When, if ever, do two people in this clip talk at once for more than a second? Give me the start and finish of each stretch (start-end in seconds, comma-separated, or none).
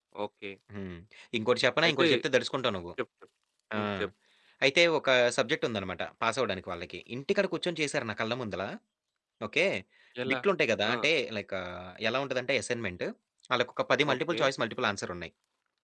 none